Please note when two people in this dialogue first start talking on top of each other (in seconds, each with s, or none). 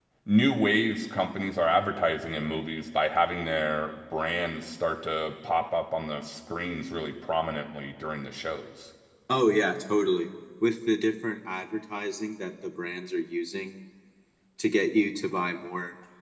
none